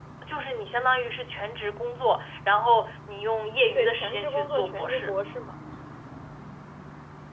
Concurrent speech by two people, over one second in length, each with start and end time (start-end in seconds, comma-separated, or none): 3.8-5.1